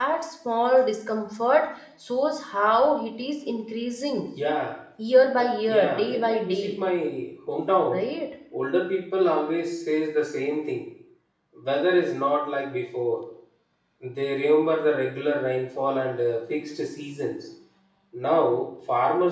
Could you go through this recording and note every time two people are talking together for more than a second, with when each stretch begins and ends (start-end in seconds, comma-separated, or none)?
5.4-6.7